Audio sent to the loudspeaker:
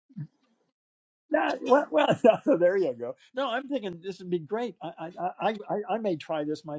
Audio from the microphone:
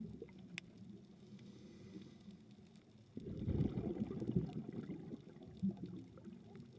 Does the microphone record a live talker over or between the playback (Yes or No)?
No